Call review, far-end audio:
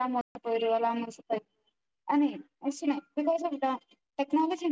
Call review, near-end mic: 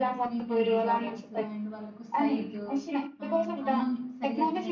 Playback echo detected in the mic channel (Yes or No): Yes